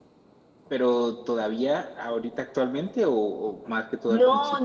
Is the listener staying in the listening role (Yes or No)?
No